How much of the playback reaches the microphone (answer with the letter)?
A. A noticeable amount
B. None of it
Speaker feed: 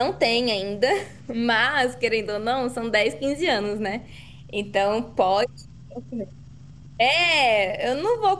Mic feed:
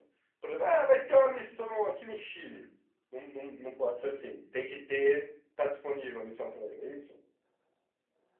B